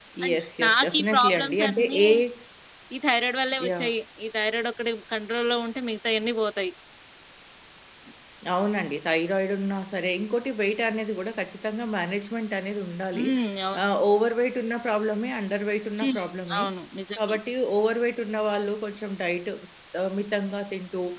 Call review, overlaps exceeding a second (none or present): present